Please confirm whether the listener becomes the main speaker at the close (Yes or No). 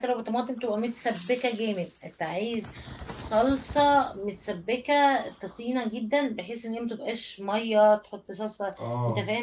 No